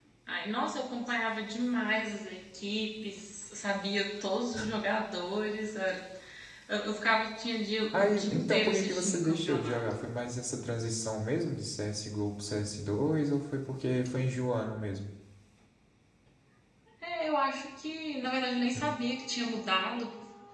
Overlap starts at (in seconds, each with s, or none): 7.9 s